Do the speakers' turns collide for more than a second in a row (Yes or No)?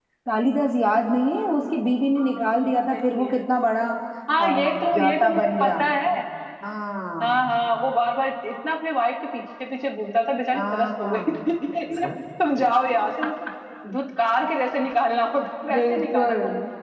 Yes